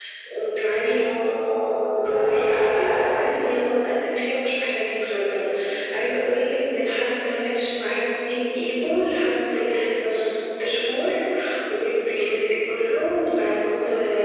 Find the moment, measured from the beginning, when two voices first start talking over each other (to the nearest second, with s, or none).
2 s